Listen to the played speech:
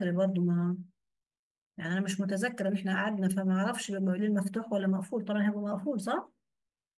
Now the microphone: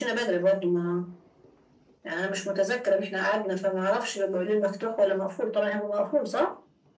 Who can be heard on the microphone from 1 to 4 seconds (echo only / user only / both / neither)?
echo only